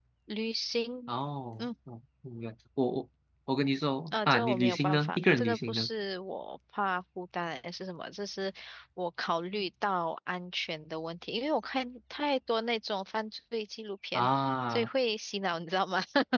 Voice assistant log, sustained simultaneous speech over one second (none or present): present